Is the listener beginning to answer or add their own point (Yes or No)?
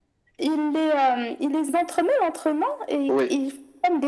No